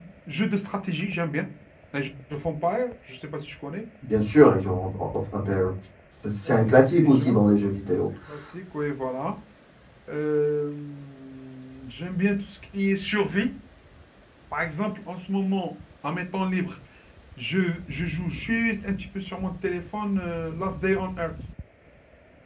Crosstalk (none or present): present